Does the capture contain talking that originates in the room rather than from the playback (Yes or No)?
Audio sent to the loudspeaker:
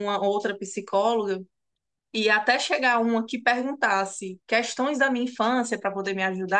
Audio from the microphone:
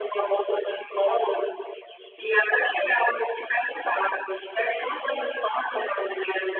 No